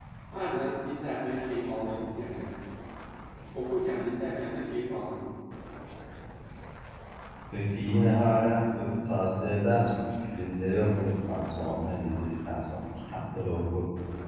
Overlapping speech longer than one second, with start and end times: none

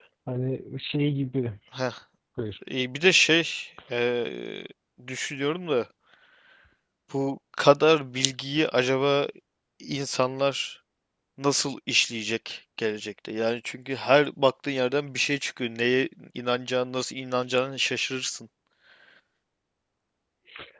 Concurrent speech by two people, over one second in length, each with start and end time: none

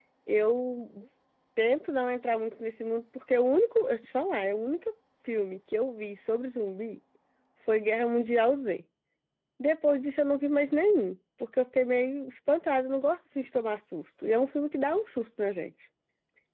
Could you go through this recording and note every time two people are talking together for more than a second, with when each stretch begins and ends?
none

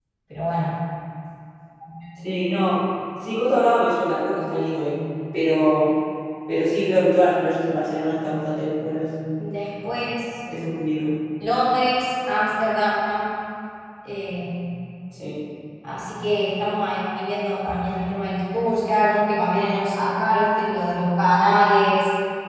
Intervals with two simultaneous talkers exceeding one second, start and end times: none

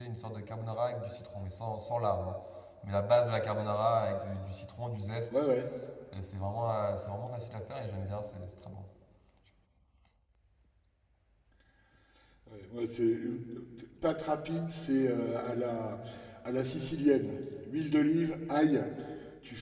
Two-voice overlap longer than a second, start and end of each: none

